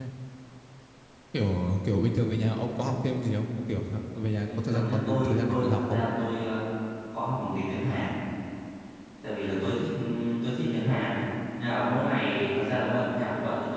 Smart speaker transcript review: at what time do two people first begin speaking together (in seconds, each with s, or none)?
4.4 s